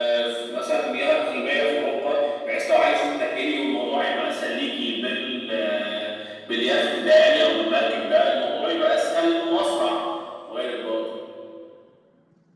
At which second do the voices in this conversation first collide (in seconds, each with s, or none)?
none